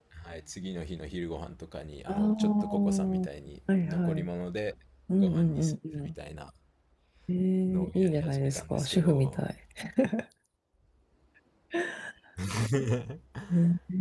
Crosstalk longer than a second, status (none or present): present